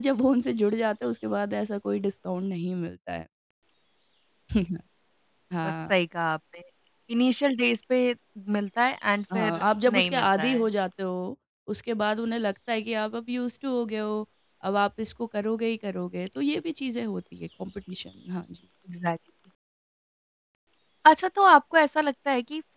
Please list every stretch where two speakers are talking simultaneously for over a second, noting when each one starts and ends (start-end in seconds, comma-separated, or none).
9.3-10.6